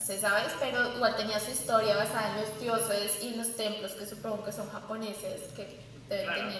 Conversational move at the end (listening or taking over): taking over